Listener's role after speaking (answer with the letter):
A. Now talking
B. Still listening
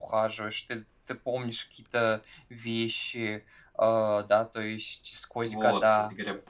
A